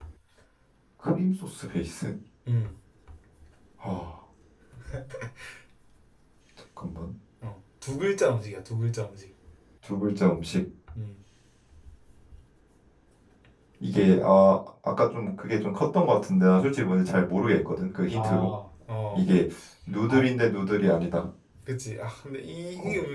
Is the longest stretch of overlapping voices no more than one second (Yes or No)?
Yes